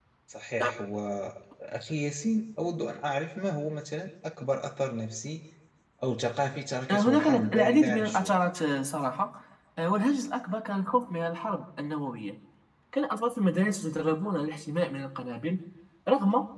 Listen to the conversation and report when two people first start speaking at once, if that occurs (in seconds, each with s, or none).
6.9 s